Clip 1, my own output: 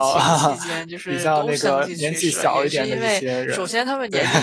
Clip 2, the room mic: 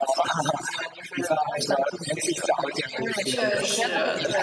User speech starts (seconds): 3.2 s

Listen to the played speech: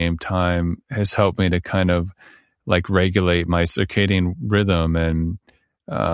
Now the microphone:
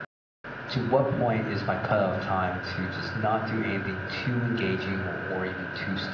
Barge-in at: 0.7 s

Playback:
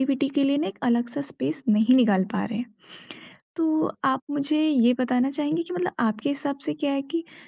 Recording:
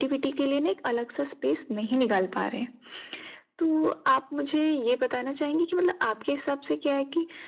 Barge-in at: none

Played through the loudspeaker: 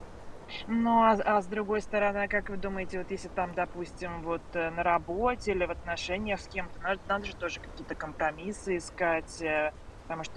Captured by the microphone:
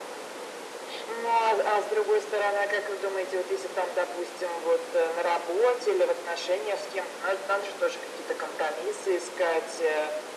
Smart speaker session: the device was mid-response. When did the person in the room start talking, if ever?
none

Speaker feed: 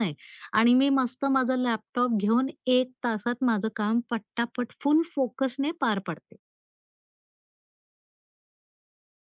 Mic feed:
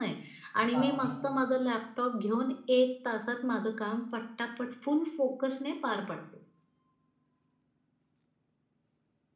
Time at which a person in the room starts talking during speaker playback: 0.7 s

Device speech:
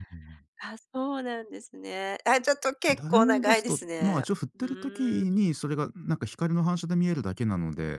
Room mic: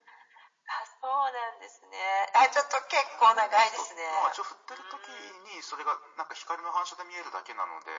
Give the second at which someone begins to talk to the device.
none

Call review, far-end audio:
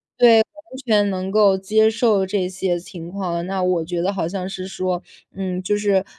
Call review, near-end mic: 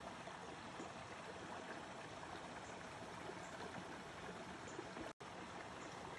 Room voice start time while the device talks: none

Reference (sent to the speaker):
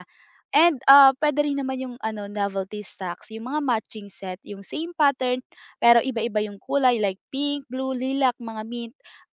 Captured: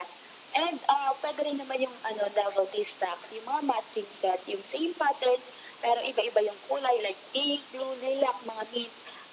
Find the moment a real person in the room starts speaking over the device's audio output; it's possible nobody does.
none

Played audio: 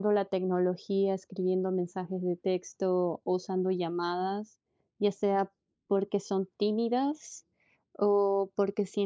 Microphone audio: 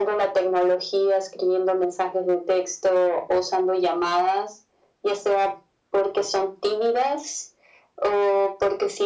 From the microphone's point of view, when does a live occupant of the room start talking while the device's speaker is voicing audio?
none

